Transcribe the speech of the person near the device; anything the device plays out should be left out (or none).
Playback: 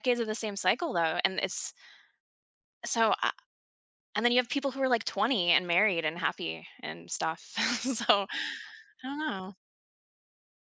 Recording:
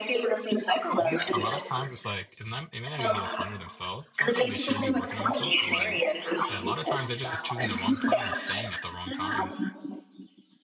Yeah, a lotta times it's, like it's not it may not even be the partner themselves, sometimes they should be working on themselves, but, like, a lotta times they're just choosing the wrong partner and staying at the wrong times.